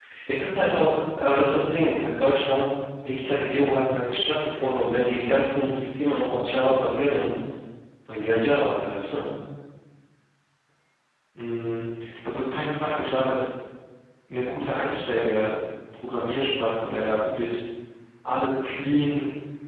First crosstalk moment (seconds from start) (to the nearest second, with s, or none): none